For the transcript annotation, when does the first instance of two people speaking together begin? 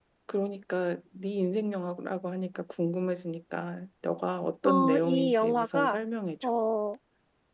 5 s

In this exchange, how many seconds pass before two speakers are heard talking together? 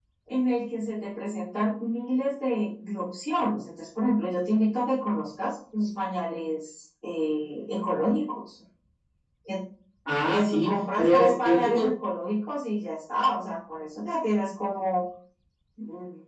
10 s

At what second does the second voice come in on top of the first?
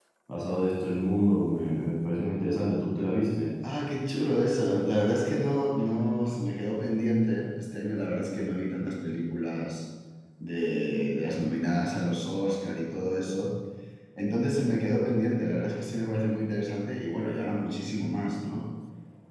none

